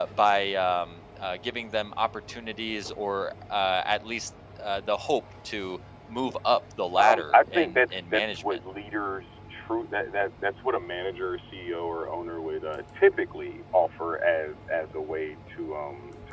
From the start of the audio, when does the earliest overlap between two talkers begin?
7.0 s

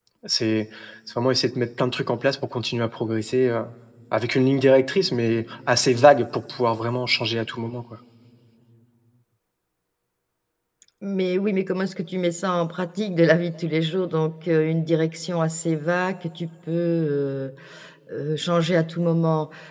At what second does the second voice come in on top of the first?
none

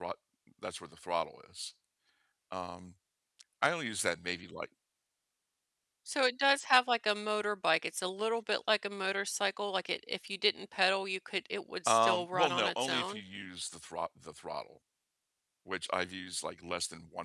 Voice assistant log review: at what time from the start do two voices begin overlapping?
11.9 s

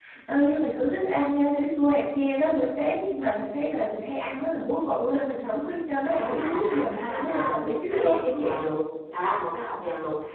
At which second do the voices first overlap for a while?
6.0 s

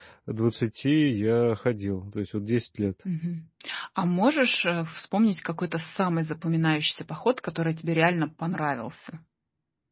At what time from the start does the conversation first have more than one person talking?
none

